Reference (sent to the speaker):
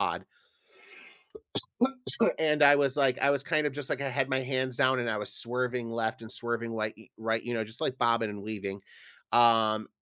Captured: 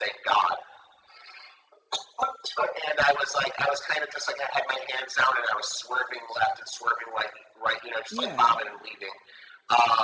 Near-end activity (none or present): present